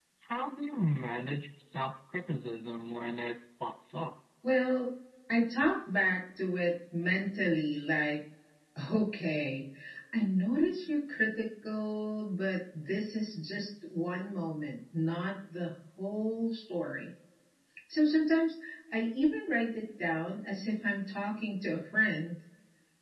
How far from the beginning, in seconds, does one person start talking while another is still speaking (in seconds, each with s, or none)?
none